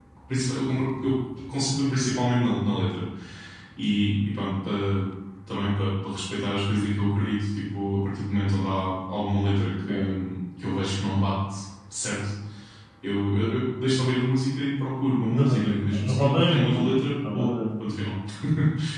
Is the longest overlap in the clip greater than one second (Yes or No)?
Yes